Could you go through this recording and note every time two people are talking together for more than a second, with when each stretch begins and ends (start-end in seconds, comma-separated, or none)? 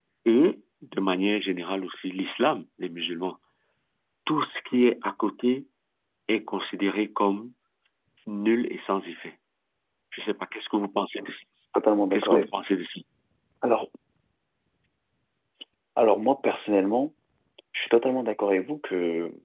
none